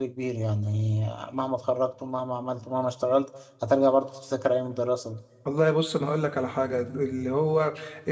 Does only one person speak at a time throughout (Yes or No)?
Yes